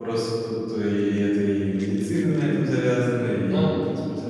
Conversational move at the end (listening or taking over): listening